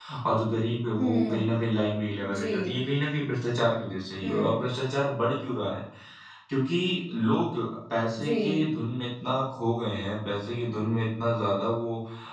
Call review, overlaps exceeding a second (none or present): none